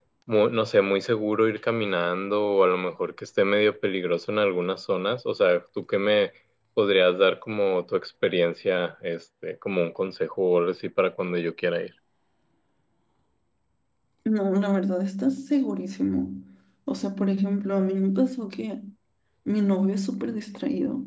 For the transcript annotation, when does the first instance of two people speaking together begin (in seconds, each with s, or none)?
none